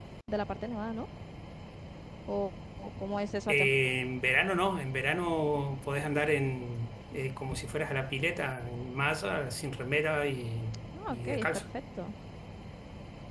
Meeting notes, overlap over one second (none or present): none